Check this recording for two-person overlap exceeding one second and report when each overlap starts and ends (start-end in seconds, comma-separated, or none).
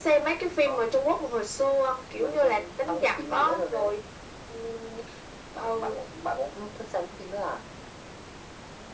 2.2-3.9